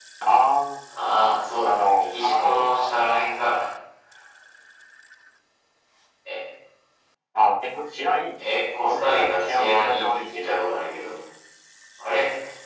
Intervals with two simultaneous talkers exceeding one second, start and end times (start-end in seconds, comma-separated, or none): 1.6-3.2, 8.8-10.8